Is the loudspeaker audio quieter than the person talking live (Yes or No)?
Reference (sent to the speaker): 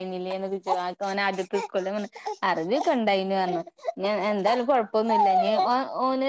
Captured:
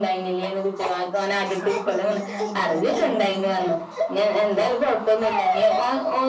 No